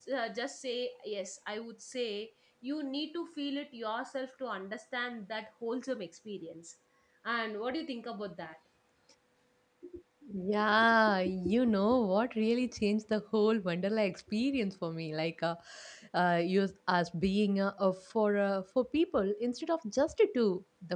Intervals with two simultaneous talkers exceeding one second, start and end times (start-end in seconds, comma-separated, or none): none